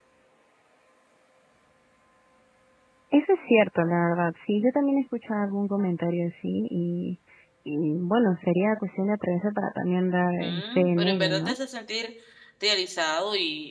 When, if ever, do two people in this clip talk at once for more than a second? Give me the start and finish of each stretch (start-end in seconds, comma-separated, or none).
10.2-11.6